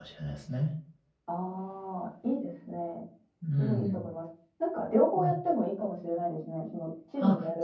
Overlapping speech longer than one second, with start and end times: none

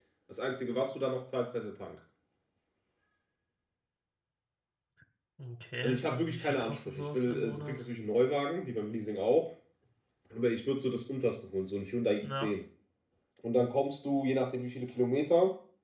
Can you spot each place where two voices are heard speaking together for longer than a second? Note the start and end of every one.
5.8-7.8

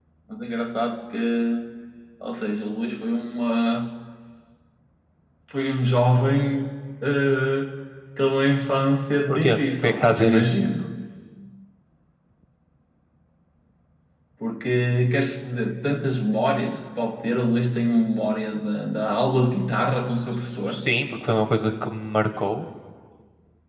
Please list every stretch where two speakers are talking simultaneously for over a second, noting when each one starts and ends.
9.3-10.6

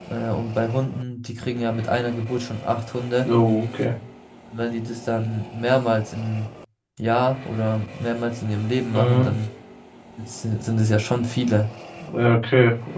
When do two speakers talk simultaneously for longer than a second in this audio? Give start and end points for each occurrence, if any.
none

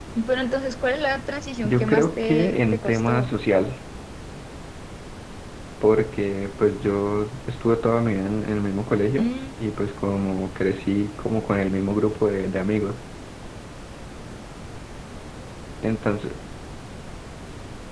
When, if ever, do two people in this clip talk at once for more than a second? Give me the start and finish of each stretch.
1.6-3.3

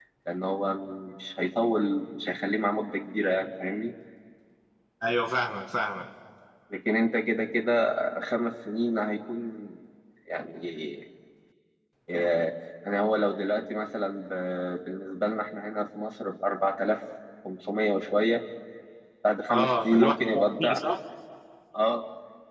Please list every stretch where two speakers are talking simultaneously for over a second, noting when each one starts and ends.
19.5-20.8

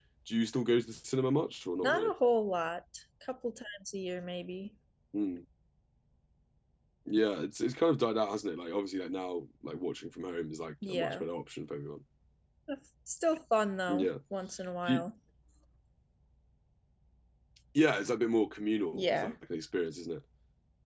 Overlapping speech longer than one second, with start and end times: none

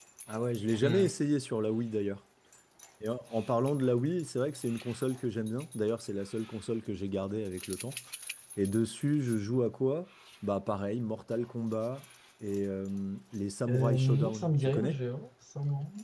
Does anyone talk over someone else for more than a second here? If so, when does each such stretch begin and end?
13.7-15.0

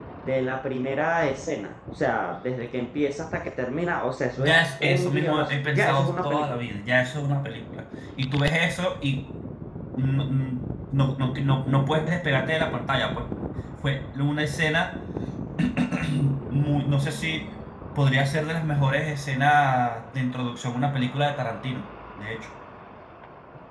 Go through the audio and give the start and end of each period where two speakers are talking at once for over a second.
4.4-6.7

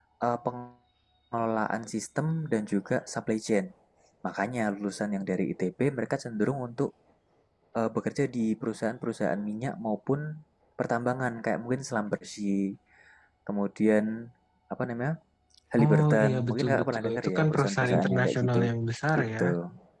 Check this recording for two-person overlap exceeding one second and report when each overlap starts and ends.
15.8-18.6

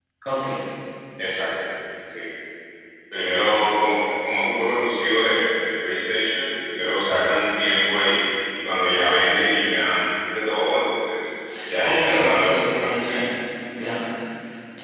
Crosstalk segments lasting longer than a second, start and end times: 11.8-13.2

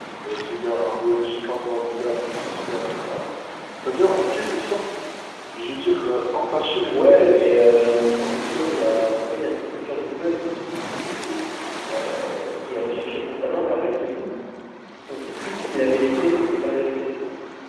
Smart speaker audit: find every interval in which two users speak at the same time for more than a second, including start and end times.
6.9-8.3

